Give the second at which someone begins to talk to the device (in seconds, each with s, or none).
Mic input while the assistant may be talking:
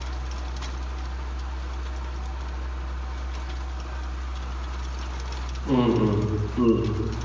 5.7 s